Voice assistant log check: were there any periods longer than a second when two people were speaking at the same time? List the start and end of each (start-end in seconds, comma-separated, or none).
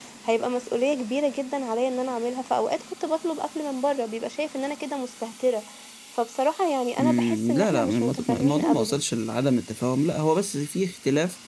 7.0-9.0